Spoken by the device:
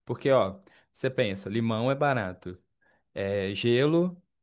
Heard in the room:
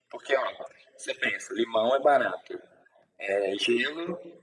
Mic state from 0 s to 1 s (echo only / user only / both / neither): echo only